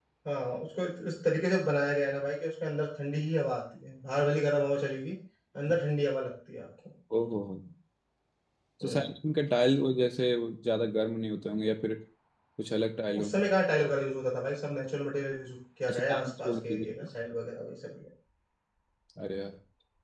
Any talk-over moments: Yes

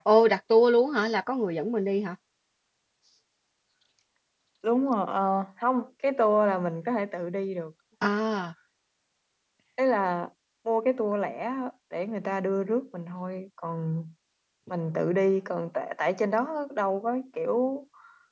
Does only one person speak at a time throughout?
Yes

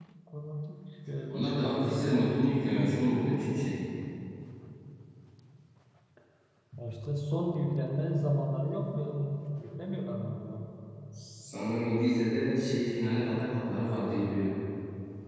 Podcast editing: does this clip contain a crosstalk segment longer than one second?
Yes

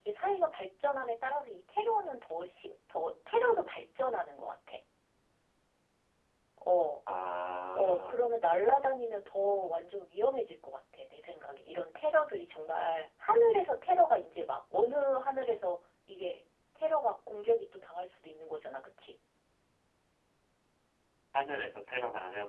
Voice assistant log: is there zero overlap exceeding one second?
Yes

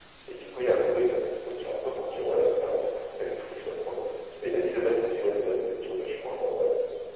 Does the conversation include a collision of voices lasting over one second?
No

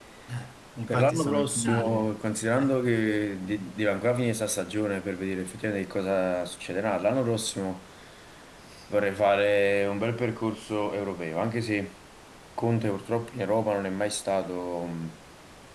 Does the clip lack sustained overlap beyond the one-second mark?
No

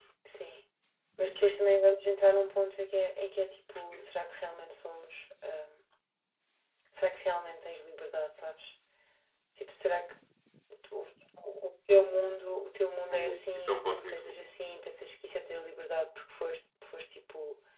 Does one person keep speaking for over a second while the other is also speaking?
Yes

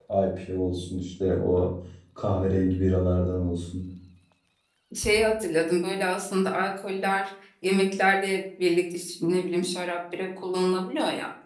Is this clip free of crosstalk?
Yes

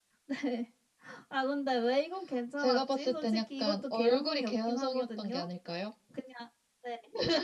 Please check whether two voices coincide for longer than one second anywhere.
Yes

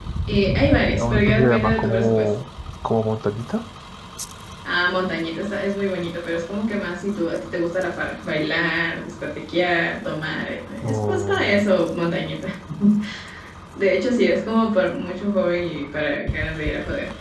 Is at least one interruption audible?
Yes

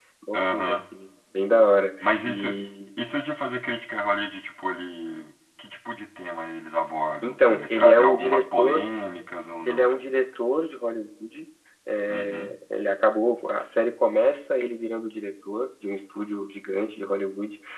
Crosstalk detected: Yes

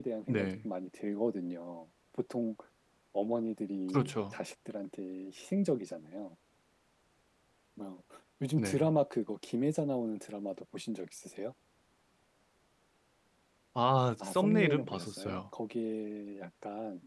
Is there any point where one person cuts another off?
Yes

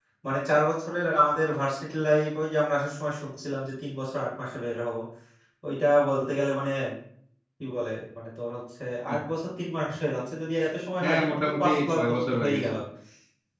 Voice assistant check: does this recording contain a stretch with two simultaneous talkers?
Yes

